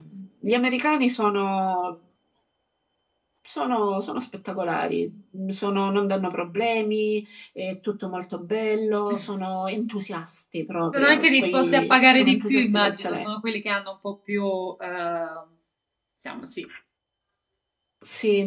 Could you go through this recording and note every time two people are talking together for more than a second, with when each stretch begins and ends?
10.9-13.2

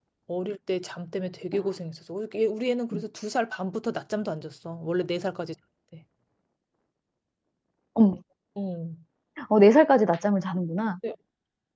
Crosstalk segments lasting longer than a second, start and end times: none

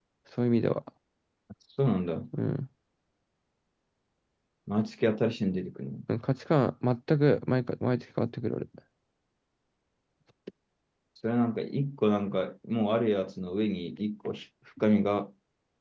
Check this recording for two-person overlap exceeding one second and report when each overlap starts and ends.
none

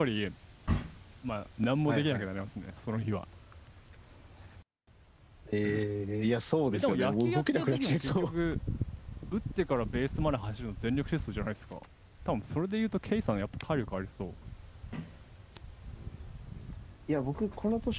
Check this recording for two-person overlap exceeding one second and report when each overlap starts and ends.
6.7-8.3

